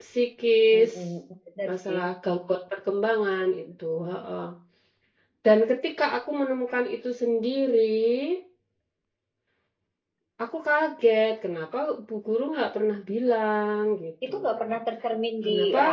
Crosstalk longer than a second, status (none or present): none